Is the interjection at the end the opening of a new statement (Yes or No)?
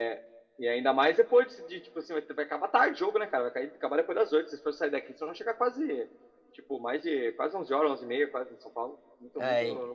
Yes